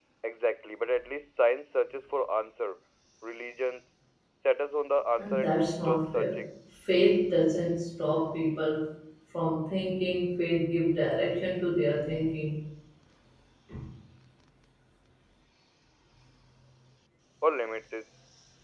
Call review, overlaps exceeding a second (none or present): present